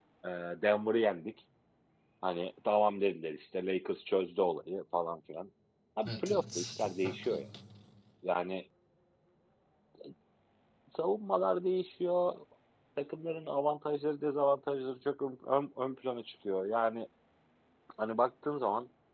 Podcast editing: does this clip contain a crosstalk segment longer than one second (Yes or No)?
Yes